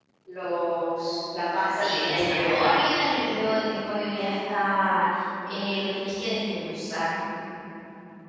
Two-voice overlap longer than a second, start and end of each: 1.7-2.9

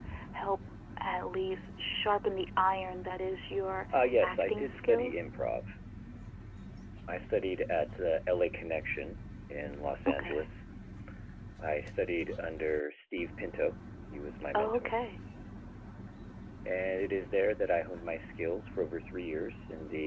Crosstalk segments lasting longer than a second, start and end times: 4.0-5.3

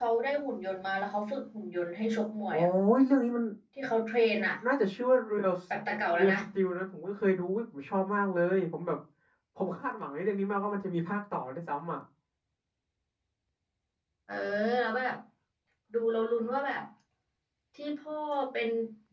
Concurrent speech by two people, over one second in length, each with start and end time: none

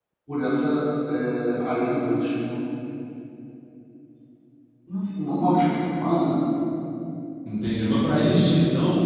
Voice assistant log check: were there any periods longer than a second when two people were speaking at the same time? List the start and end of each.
none

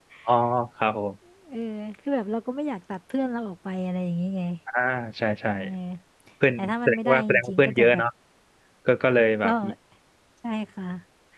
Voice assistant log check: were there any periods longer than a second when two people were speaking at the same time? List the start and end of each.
6.6-8.0

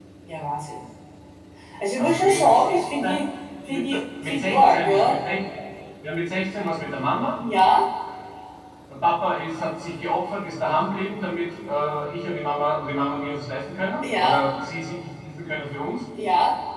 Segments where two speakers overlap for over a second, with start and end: 2.0-3.2, 3.7-5.2

